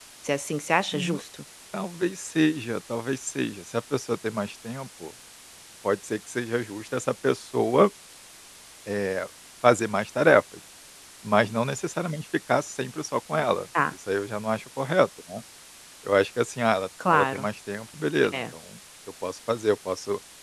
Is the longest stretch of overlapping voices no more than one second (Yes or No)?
Yes